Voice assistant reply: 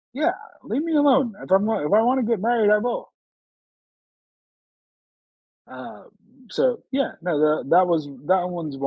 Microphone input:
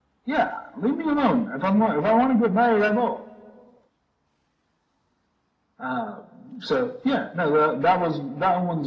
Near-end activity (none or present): none